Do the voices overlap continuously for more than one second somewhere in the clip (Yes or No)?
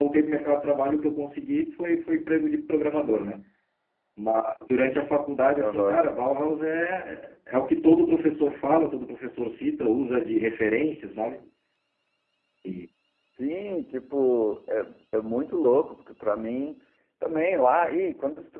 No